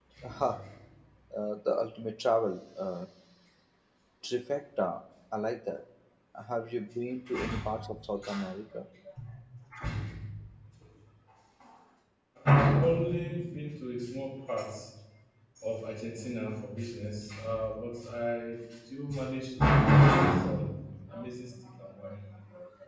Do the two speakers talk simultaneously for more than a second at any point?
No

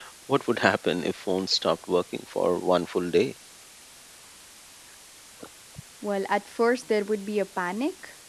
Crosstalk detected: No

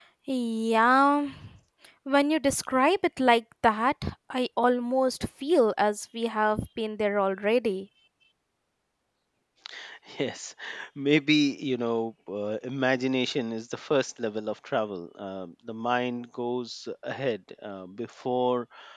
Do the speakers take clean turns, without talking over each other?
Yes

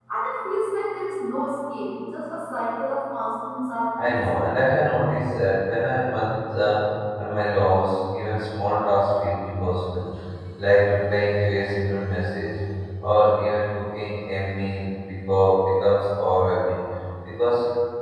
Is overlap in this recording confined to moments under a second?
Yes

